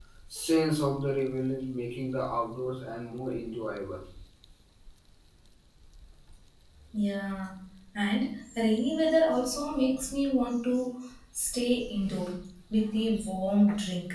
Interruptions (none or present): none